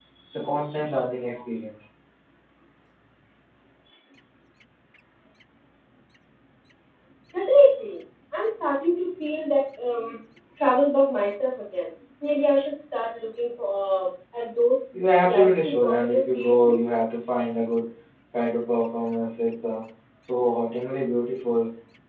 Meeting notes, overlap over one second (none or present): present